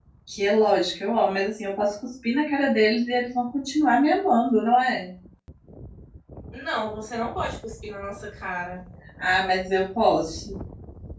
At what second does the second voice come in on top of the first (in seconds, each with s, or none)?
none